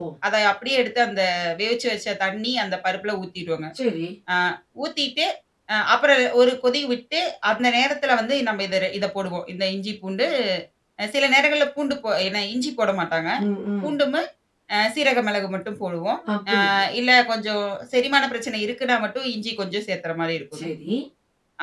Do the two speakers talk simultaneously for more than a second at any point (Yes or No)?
No